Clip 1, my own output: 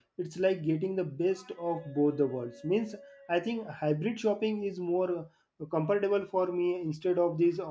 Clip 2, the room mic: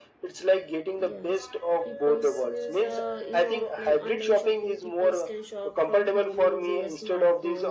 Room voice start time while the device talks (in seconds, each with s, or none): 1.0 s